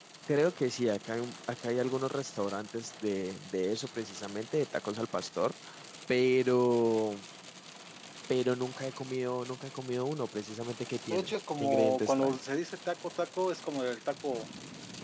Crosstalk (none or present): present